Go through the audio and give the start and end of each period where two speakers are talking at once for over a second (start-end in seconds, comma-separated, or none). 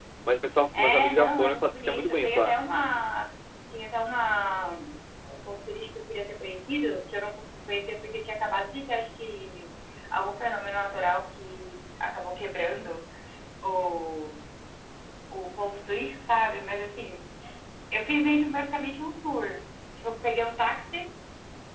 0.7-2.5